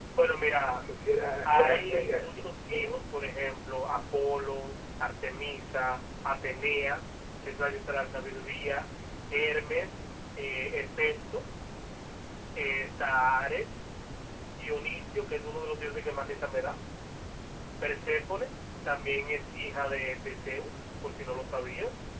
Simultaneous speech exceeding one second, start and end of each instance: 1.4-3.0

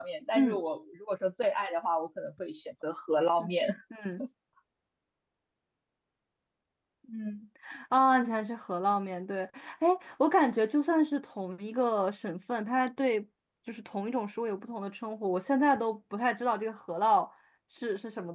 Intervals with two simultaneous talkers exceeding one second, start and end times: none

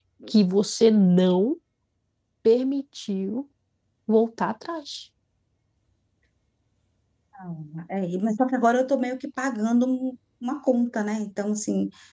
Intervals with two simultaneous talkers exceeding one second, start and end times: none

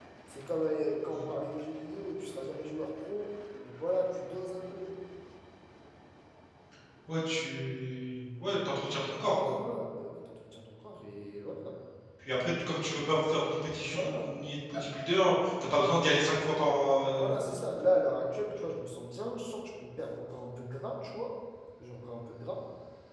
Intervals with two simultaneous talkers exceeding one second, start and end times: none

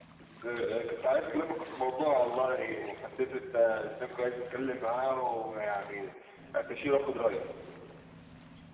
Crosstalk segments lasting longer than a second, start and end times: none

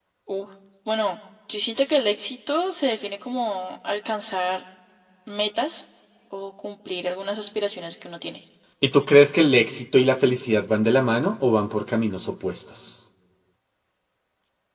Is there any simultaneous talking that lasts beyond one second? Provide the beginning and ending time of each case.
none

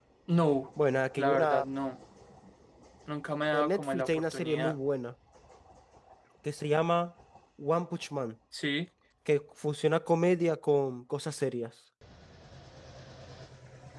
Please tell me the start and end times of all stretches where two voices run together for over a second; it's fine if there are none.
3.5-4.8

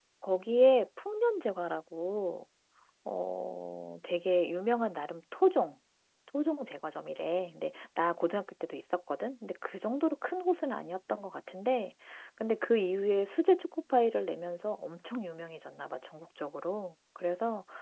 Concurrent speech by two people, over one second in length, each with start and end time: none

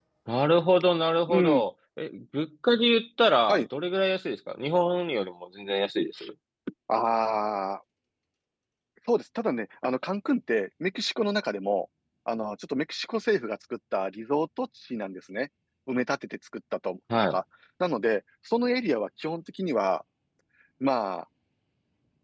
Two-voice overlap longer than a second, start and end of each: none

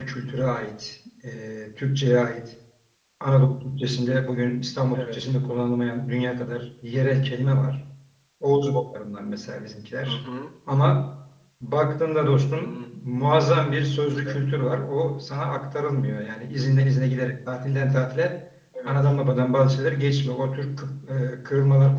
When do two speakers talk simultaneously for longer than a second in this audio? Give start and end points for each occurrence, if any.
none

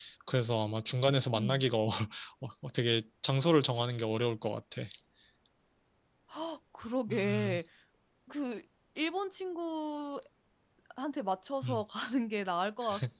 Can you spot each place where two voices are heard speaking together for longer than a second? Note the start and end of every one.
none

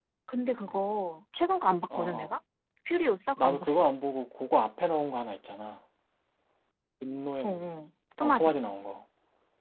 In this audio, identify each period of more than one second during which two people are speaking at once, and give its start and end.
none

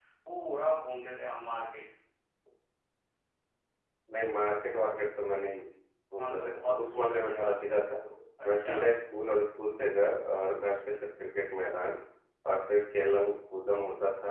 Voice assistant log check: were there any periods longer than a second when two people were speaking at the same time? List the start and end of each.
6.2-7.7

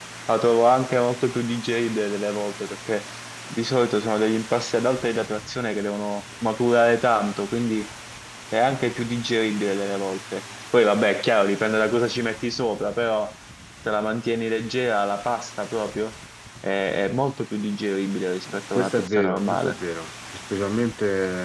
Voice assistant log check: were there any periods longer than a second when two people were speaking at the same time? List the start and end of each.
18.5-19.8

